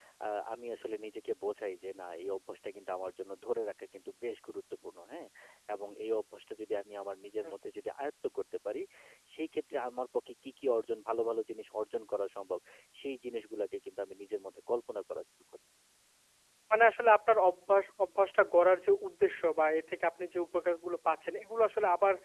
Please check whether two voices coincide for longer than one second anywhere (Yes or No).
No